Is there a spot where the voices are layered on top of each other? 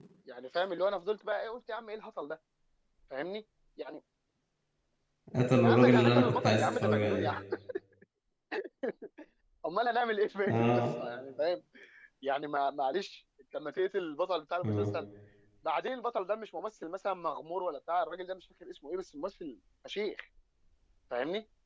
Yes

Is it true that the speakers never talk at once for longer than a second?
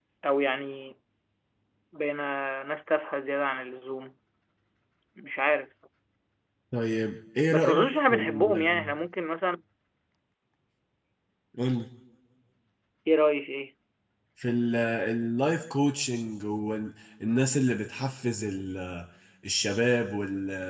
No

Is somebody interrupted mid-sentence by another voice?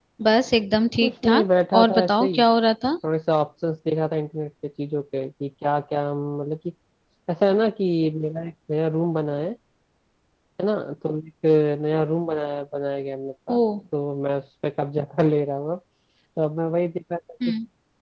Yes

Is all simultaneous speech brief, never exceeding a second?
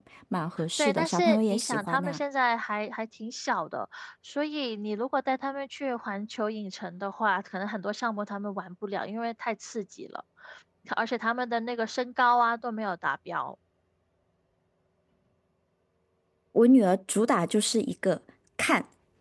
No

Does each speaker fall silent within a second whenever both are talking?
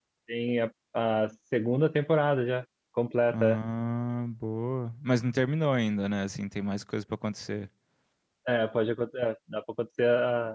Yes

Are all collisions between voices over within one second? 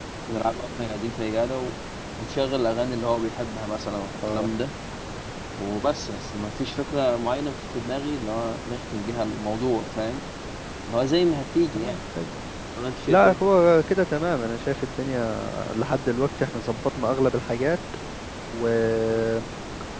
Yes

